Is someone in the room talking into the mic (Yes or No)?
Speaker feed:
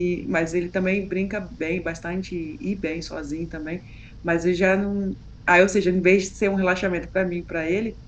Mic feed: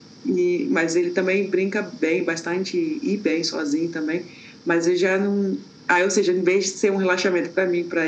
No